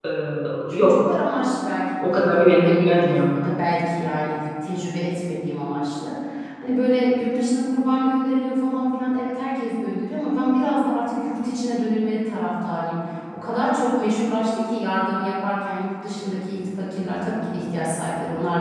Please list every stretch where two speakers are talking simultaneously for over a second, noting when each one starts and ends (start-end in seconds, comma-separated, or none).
2.0-3.3